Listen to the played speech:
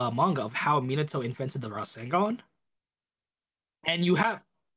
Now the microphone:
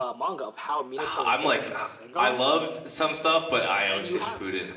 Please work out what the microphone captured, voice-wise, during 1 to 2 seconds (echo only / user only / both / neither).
both